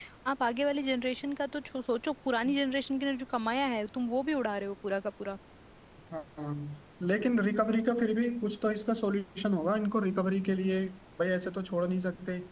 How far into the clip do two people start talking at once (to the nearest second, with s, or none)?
none